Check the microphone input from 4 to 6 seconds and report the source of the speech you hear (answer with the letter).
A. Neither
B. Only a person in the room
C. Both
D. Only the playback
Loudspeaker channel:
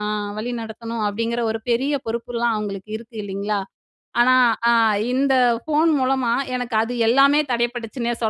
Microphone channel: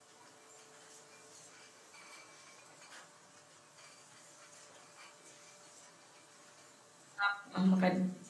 A